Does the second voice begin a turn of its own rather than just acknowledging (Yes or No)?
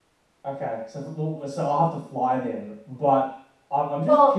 Yes